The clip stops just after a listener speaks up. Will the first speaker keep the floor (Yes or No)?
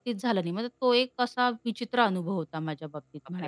No